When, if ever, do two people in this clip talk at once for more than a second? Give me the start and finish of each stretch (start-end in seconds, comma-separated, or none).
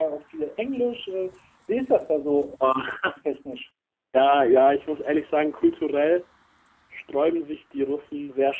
none